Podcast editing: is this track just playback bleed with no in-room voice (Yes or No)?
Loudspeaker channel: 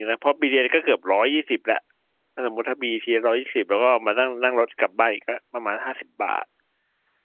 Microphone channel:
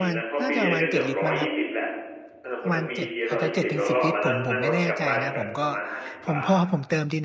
No